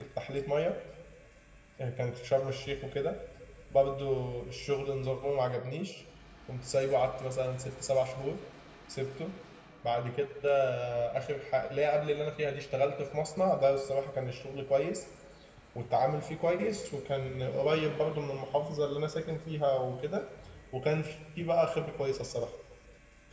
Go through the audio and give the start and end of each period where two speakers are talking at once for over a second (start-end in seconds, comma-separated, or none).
none